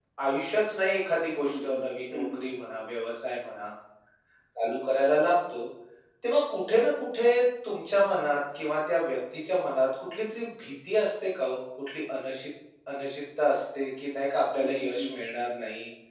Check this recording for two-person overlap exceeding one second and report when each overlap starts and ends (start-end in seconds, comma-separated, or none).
1.4-2.6